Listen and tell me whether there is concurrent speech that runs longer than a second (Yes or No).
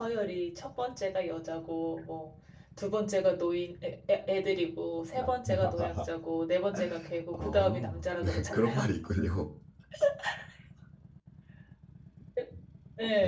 Yes